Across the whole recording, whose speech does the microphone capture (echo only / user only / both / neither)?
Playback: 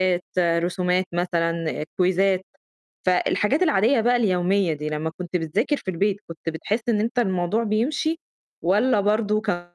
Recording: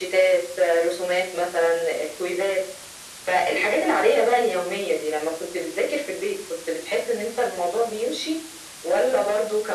echo only